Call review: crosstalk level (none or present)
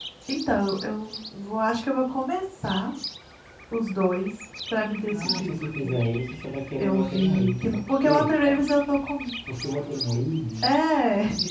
present